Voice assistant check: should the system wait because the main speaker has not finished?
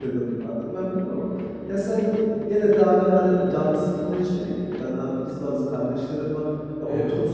Yes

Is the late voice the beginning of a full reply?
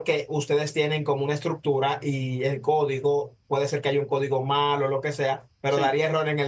No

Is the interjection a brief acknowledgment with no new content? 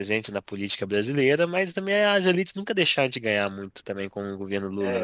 No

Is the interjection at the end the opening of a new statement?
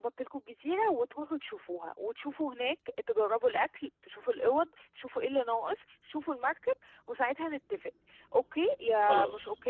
No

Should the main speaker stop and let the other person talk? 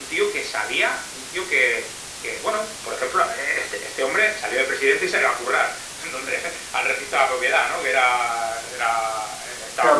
Yes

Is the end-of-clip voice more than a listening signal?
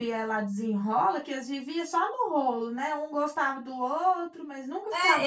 Yes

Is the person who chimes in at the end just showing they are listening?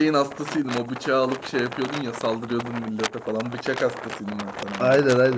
No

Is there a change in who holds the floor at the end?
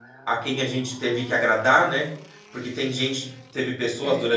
No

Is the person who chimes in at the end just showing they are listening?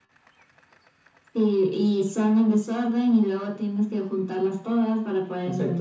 No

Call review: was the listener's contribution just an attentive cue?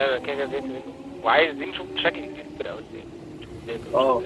No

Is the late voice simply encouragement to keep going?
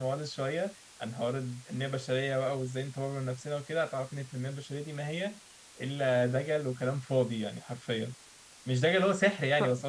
Yes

